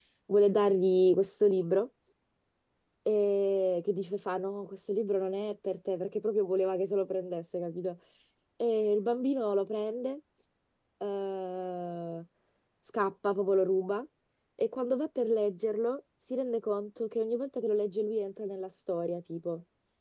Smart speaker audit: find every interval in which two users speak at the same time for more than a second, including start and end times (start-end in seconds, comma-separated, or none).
none